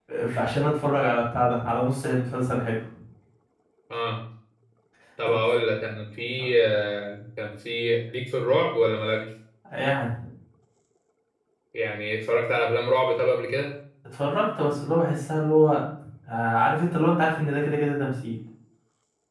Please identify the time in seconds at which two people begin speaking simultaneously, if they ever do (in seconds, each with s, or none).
none